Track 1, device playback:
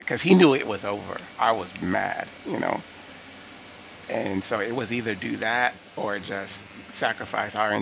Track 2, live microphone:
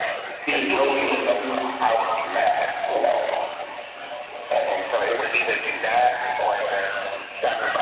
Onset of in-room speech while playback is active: 0 s

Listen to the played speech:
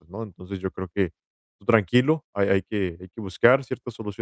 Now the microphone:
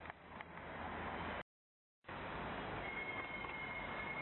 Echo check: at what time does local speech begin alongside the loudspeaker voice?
none

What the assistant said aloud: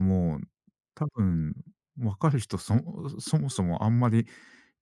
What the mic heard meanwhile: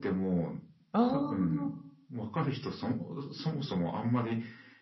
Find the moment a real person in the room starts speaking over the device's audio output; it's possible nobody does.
1 s

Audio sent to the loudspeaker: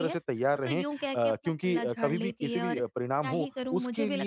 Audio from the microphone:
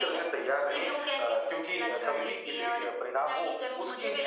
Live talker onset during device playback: none

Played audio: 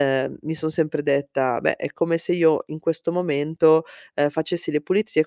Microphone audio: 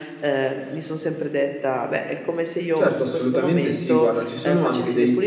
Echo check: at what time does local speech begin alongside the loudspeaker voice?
3 s

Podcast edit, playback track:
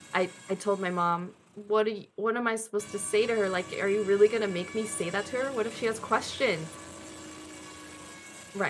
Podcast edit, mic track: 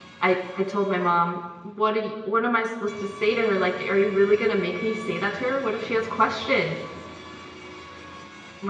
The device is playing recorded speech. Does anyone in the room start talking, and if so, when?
none

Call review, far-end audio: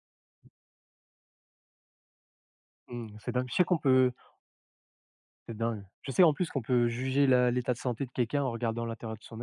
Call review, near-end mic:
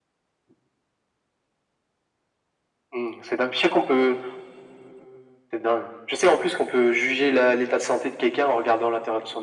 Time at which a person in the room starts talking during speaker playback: none

